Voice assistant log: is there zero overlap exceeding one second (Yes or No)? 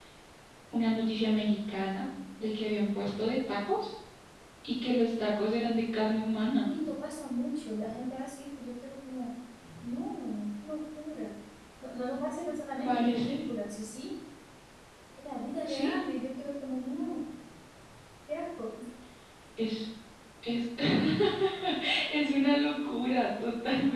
Yes